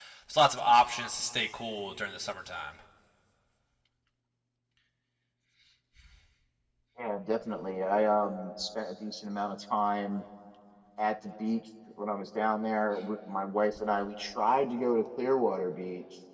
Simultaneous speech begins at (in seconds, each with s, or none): none